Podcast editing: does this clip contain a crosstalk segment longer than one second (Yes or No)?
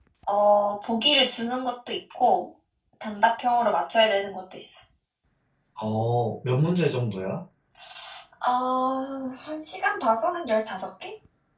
No